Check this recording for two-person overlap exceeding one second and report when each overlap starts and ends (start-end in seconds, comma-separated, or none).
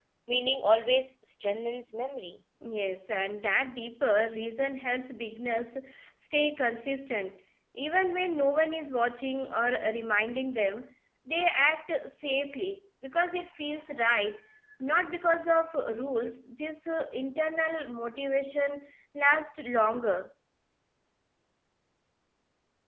none